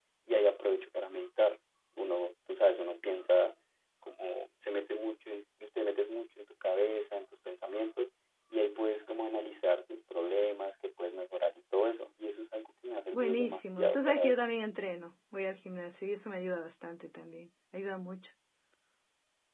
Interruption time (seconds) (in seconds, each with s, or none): 13.1 s